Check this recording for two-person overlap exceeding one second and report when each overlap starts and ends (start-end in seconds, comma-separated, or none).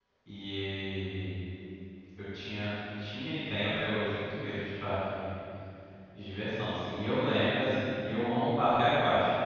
none